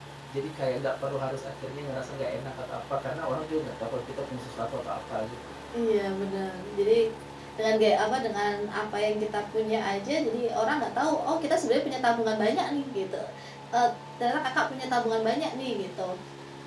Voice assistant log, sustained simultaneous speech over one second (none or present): none